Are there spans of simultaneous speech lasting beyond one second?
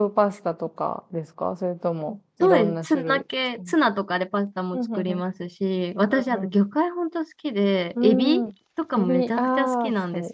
Yes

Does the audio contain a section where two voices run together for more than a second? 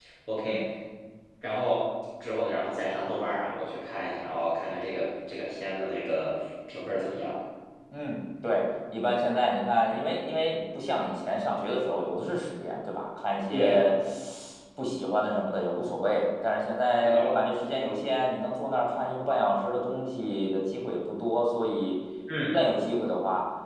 No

